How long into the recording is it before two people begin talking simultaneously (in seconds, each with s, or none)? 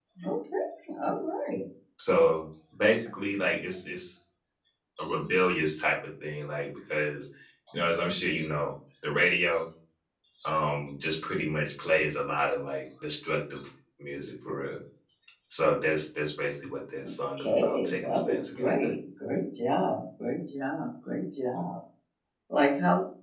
17.4 s